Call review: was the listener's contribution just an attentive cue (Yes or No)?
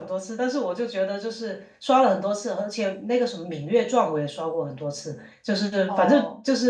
Yes